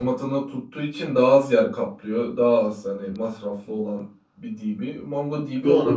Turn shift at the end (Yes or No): Yes